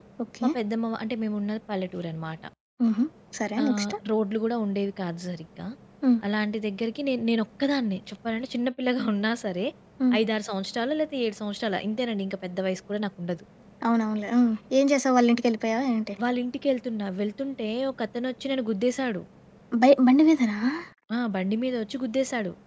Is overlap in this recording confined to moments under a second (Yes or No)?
Yes